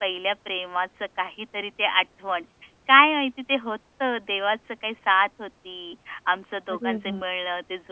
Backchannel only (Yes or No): Yes